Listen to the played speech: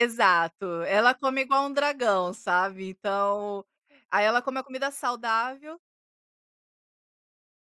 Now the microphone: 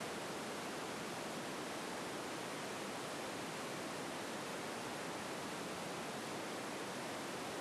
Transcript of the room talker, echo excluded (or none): none